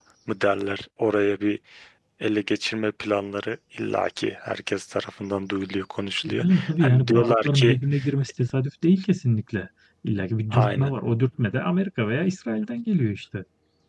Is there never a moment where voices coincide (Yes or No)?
No